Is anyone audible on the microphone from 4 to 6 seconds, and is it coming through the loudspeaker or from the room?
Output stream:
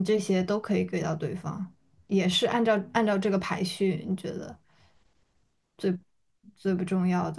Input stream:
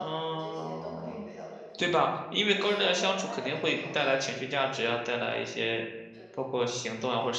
both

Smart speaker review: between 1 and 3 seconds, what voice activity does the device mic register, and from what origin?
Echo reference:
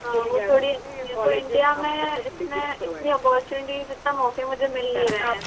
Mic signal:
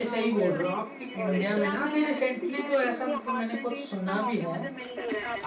both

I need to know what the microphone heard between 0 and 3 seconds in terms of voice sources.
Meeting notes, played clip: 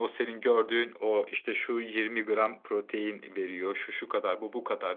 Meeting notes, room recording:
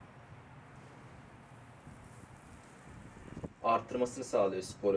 neither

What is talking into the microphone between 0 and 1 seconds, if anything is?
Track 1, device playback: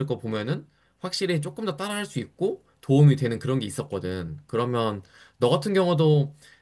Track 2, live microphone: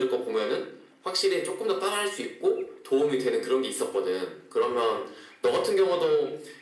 echo only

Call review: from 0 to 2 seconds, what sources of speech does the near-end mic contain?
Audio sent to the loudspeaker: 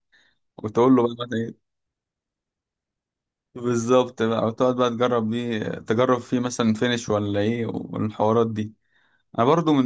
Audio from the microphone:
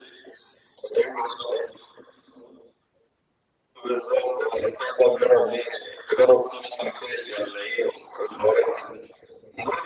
echo only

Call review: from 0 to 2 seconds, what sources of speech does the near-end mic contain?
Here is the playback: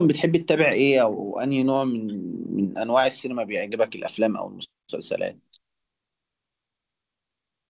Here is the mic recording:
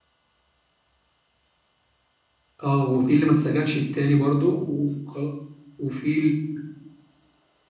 neither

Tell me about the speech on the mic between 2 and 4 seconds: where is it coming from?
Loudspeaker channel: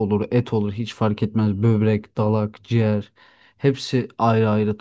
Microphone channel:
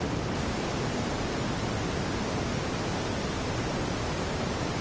neither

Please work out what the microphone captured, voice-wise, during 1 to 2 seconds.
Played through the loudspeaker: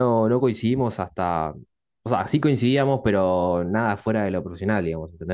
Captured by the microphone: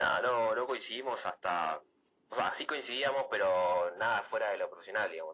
echo only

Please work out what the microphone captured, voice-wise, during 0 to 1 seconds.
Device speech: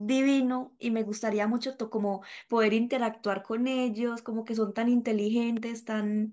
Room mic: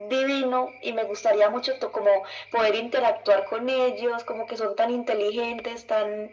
echo only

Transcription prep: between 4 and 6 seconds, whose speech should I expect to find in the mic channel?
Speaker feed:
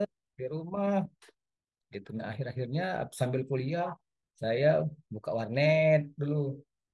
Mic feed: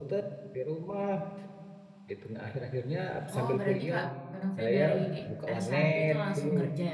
both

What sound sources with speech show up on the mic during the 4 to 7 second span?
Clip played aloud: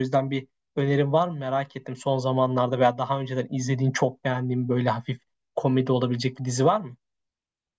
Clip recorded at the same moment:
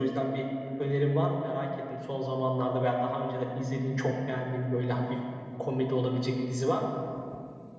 echo only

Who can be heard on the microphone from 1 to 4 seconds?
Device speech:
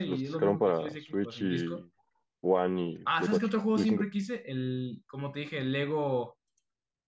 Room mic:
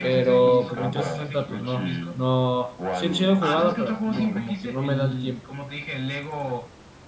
both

